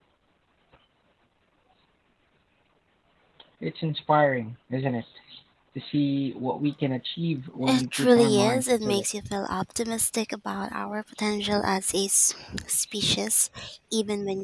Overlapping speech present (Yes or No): Yes